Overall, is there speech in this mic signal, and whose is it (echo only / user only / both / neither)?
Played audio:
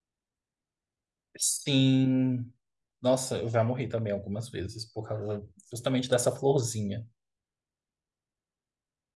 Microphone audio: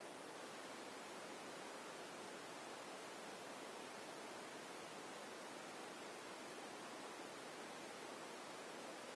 neither